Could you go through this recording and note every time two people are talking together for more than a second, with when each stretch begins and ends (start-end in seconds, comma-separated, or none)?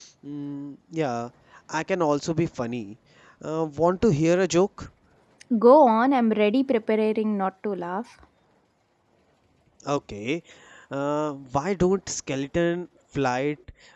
none